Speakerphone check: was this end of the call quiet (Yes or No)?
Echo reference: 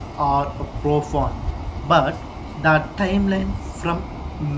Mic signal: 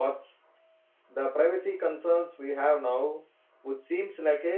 No